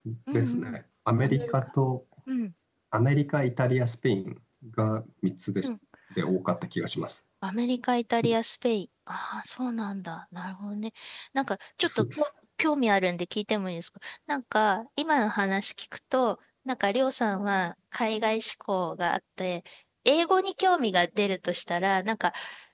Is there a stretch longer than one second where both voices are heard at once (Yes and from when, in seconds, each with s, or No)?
No